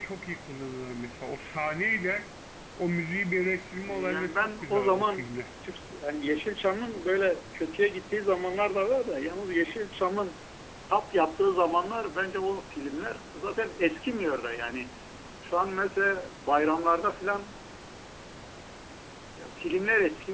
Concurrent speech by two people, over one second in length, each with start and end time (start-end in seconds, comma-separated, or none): 3.9-5.4